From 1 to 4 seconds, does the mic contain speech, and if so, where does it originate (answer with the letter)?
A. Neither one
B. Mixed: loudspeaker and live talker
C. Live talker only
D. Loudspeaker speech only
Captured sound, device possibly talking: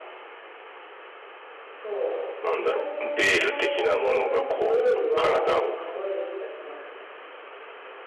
B